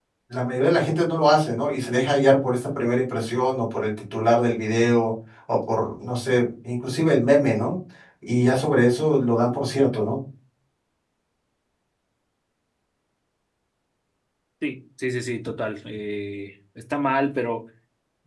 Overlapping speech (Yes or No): No